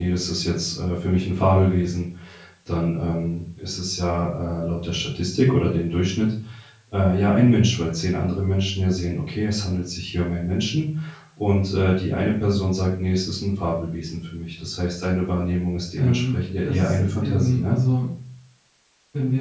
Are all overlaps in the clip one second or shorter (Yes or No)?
No